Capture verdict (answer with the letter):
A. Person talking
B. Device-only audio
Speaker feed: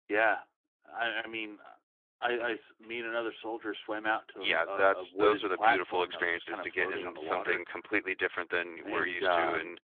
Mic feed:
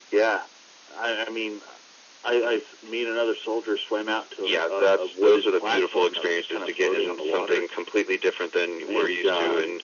B